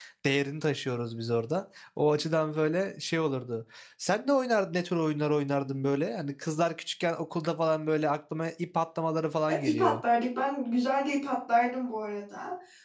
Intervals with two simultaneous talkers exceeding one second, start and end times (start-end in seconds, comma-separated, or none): none